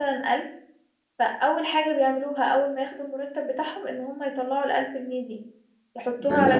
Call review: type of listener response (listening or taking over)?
taking over